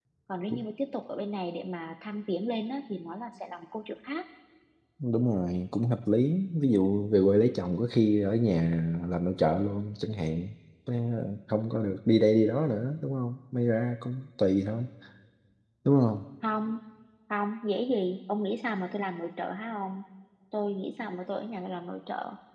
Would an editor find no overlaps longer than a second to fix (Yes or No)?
Yes